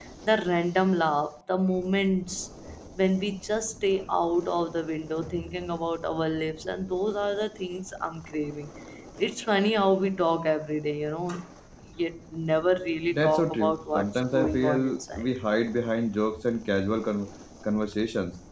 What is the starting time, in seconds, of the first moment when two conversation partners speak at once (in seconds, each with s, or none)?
13.1 s